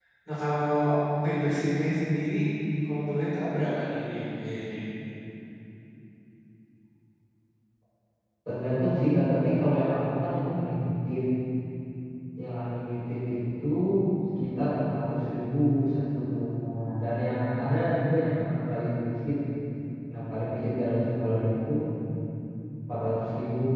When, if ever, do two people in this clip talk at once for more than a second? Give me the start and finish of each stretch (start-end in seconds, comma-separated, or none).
none